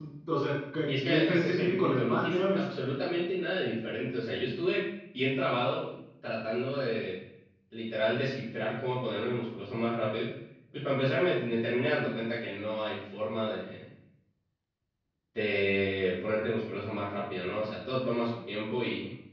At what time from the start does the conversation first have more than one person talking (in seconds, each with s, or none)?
0.9 s